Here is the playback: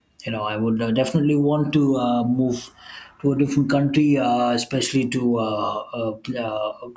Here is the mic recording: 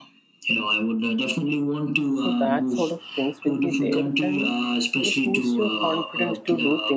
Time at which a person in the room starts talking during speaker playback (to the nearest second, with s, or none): 2 s